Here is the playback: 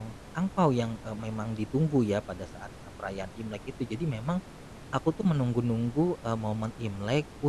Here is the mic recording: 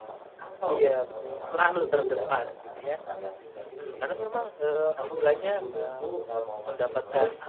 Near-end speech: present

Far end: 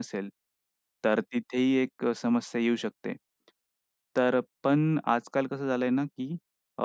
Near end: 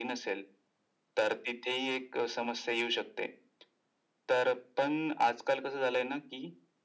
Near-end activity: none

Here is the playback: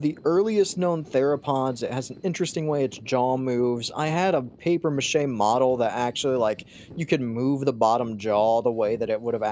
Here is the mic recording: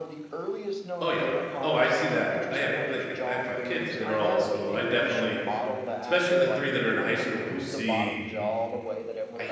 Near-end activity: present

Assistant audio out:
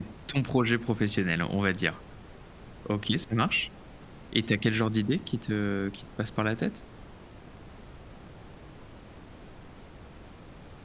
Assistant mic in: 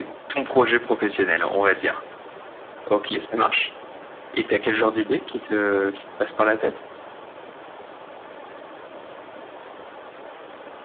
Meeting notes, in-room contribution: none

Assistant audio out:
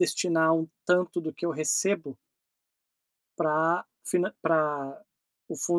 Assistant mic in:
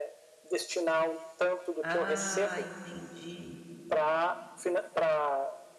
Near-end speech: present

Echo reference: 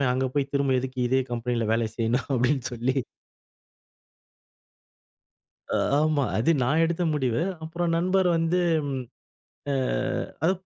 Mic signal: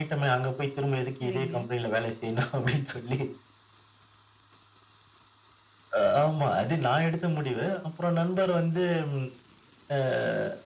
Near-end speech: present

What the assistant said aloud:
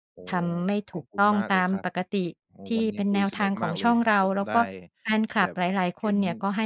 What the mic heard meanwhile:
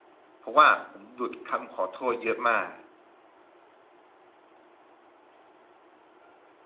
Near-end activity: present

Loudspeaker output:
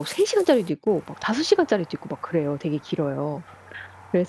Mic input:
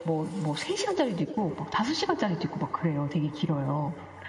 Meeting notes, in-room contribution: none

